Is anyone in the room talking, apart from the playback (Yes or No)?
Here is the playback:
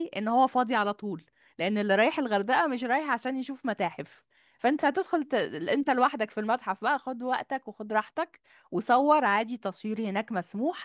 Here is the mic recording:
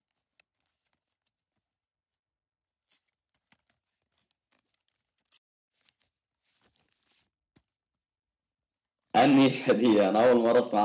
Yes